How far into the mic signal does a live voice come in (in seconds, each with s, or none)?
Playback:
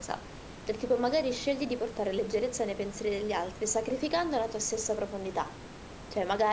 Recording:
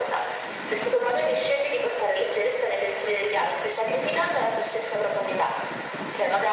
none